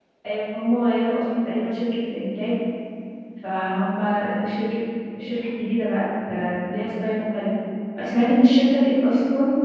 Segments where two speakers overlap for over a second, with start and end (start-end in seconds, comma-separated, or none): none